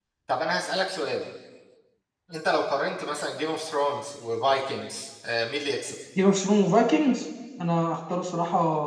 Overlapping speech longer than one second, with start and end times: none

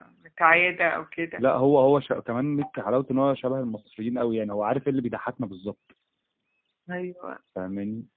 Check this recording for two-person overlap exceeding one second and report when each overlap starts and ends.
none

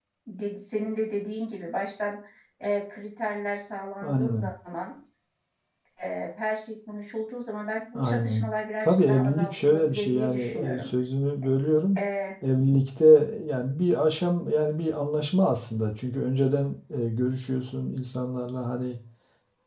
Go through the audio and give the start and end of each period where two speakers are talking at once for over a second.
8.8-10.9

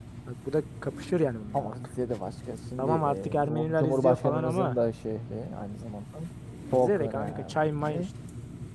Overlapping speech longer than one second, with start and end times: 2.8-4.7, 6.7-8.0

